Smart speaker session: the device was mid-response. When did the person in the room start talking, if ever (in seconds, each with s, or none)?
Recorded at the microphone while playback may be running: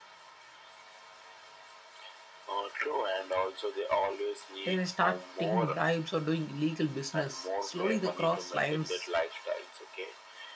4.6 s